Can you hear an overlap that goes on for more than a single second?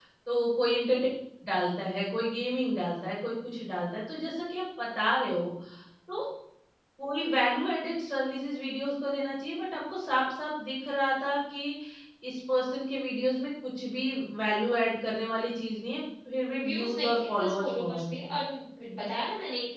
Yes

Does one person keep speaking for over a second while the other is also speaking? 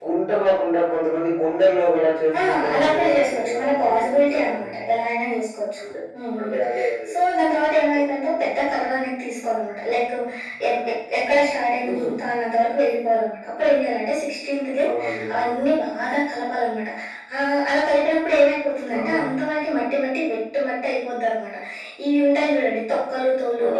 Yes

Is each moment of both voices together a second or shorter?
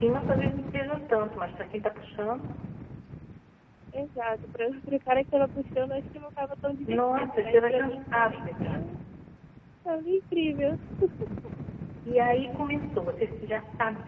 No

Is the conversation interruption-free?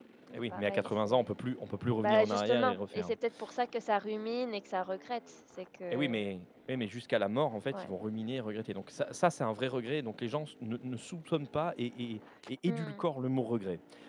No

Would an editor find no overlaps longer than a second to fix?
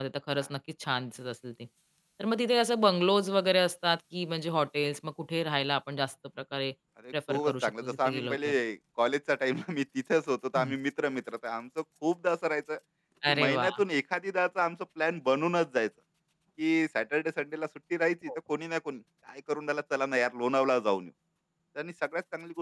No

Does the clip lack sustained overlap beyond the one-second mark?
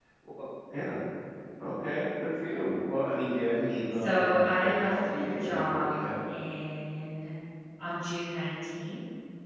No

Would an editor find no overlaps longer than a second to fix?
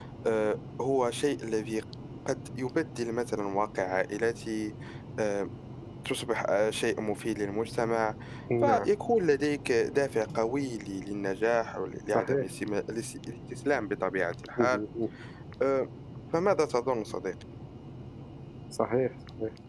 Yes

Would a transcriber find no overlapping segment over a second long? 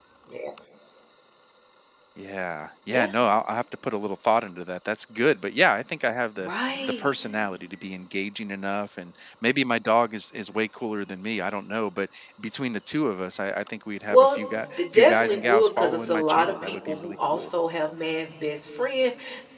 No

